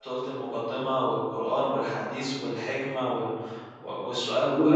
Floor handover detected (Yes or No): No